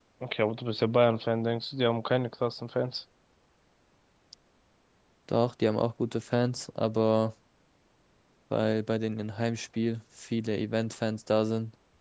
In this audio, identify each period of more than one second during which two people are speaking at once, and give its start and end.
none

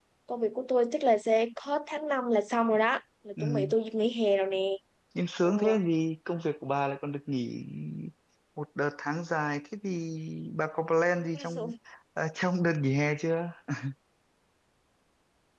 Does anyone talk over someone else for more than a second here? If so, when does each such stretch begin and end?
none

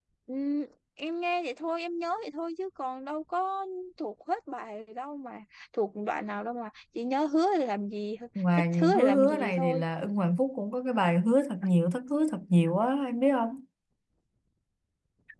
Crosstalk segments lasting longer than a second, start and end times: 8.5-9.8

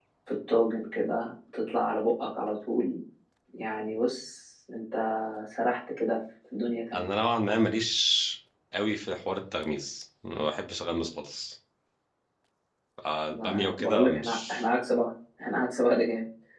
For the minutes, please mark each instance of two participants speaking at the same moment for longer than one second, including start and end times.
13.3-14.7

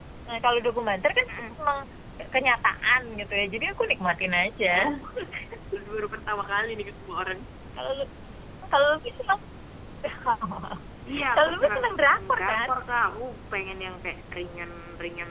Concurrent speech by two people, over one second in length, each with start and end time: 11.3-12.7

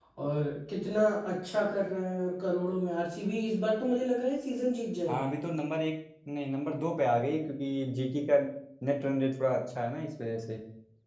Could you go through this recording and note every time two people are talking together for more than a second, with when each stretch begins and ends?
none

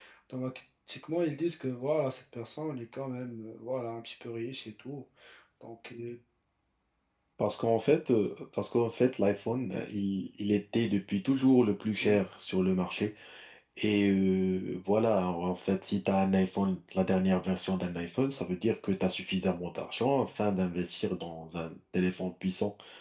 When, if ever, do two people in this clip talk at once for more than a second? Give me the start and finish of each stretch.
none

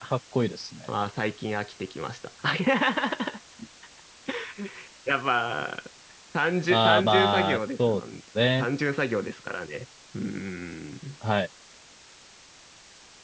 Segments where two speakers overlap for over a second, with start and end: 6.7-8.0

